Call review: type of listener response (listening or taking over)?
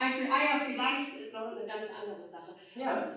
listening